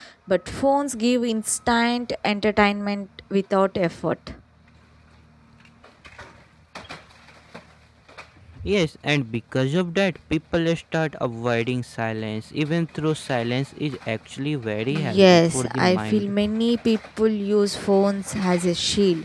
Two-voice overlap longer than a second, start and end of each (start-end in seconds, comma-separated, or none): 14.9-16.3